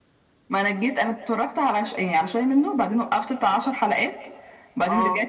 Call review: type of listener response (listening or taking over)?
listening